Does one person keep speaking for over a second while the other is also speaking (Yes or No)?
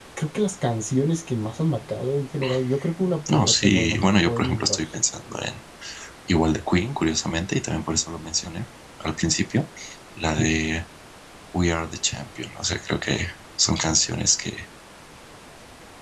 Yes